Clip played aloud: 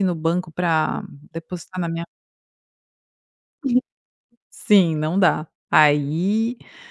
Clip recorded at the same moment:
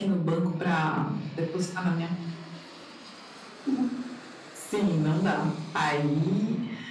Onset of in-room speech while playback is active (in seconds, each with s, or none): none